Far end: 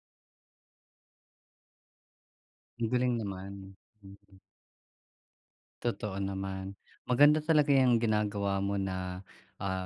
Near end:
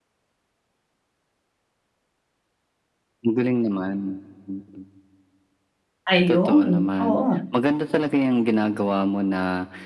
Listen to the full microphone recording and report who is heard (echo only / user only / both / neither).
both